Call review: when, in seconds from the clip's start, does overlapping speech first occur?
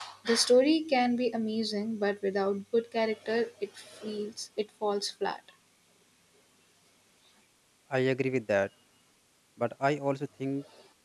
none

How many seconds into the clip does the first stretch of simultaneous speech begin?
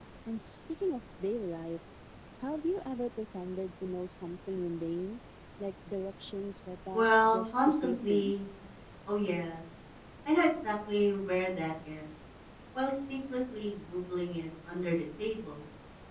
6.9 s

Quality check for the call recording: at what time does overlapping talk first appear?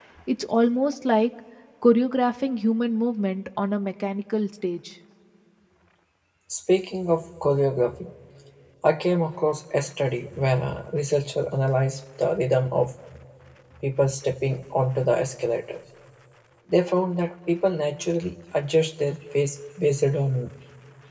none

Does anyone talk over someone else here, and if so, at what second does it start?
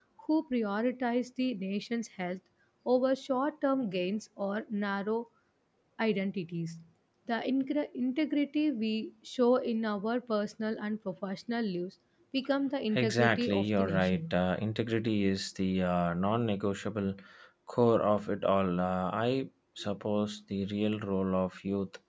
12.9 s

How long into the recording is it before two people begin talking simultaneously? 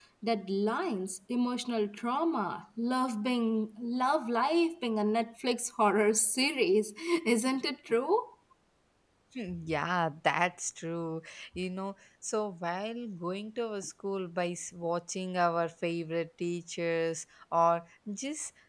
none

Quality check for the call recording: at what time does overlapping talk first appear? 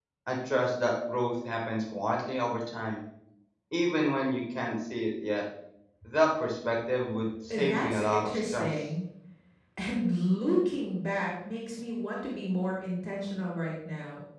7.3 s

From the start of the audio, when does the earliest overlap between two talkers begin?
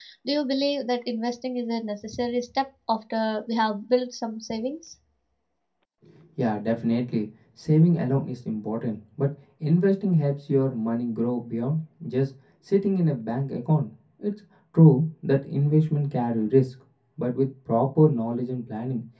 none

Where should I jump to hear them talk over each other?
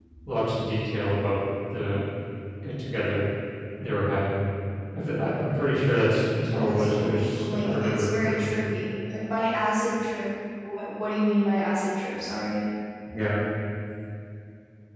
6.5 s

